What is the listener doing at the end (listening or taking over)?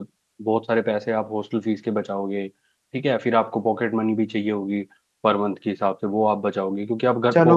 taking over